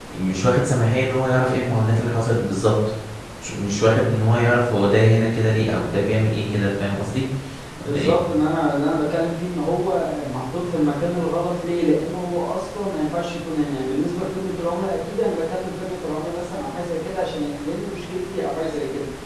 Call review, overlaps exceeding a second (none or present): none